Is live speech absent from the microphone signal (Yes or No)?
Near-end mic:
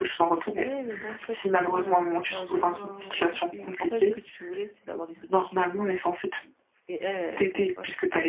No